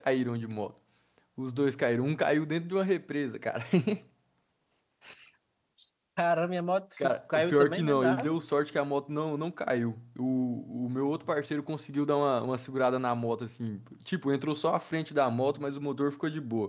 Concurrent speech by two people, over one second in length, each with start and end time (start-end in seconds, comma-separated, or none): 7.0-8.3